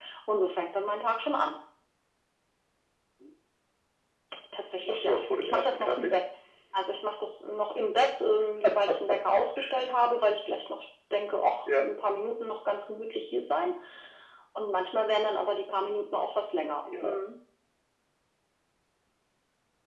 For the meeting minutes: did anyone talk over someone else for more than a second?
Yes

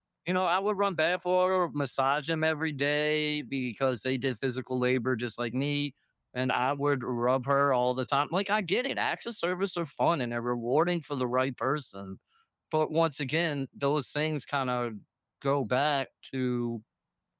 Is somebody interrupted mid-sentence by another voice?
No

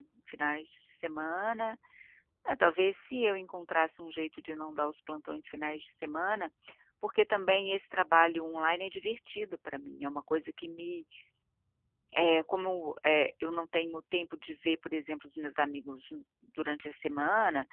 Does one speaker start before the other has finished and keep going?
No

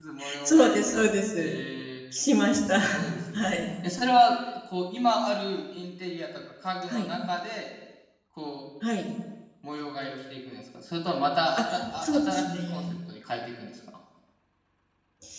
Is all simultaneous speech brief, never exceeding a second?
No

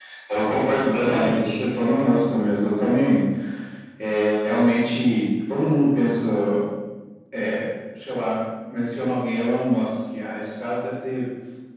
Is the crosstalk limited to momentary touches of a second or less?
No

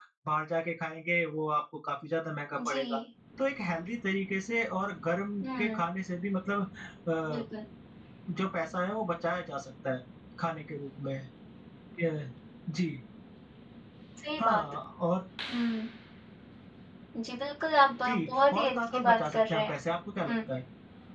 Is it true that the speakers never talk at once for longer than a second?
No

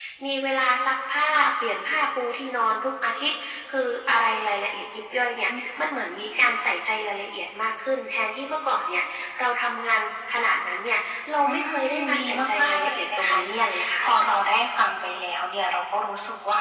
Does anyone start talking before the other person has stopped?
Yes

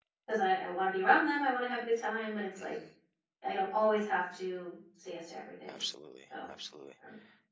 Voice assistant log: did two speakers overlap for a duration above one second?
No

